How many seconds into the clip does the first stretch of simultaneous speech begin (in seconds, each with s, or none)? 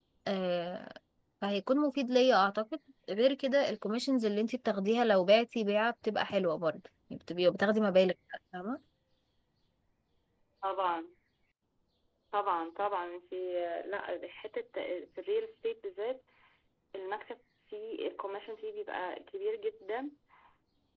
none